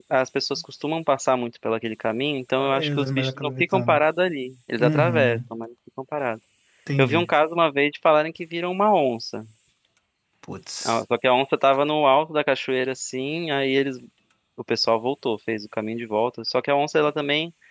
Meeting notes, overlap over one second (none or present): present